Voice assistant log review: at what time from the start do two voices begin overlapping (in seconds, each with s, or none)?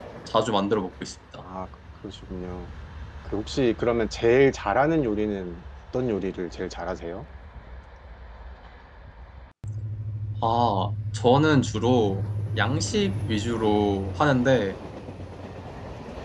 none